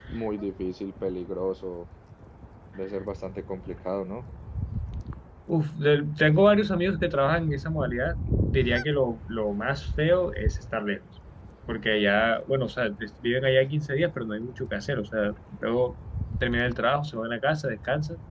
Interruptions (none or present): none